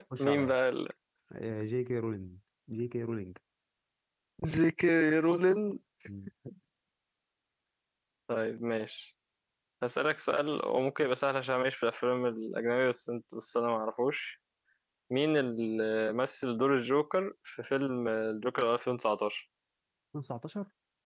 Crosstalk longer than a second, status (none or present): none